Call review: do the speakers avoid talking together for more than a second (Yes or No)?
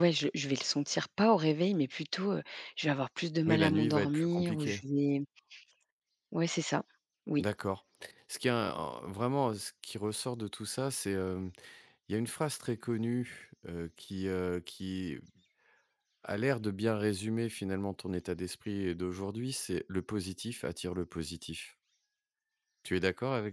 No